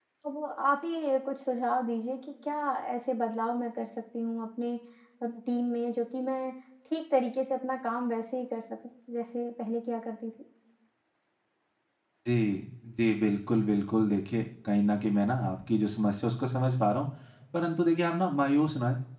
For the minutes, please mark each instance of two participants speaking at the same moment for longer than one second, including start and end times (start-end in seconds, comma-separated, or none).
none